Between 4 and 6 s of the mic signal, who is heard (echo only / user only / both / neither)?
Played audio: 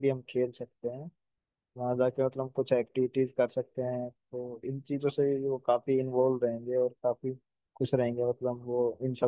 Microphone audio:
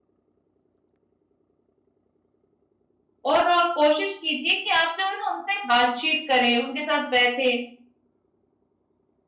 user only